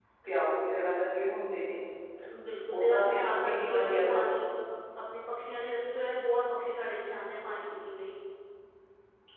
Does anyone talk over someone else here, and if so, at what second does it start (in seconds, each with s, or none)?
2.7 s